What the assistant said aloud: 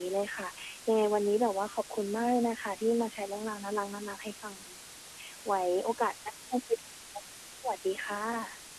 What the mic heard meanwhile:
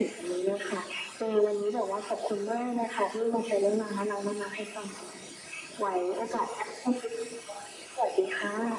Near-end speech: none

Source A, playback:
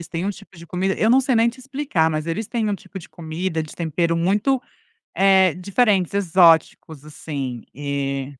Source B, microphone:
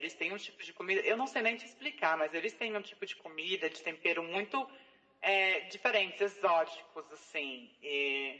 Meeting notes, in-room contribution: none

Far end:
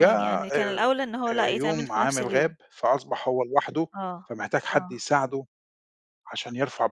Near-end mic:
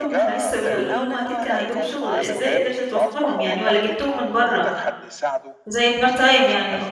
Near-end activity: present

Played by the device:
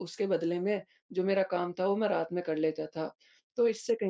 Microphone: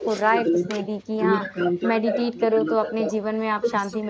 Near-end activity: present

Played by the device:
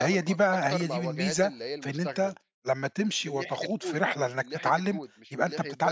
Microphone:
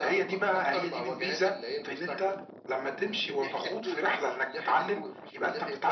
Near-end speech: none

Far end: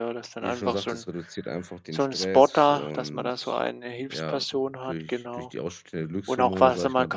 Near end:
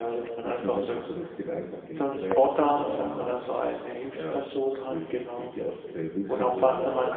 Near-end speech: present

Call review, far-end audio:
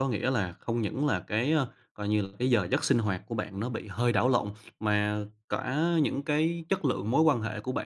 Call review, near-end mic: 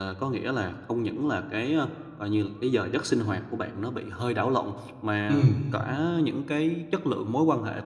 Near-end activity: present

